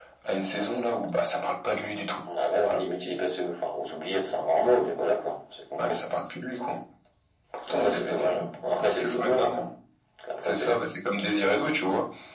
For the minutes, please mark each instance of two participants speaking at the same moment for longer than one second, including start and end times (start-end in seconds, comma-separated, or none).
7.7-9.6